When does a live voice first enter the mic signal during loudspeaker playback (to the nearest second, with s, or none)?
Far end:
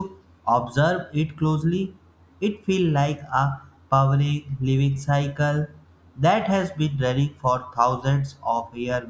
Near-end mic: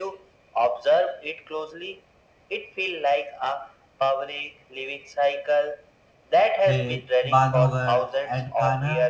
7 s